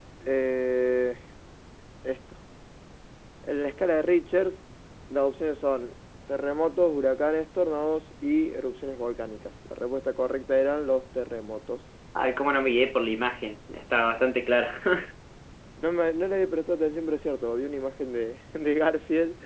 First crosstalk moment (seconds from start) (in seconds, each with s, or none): none